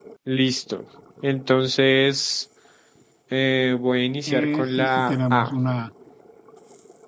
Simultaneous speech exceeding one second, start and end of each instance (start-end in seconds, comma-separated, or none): 4.3-5.5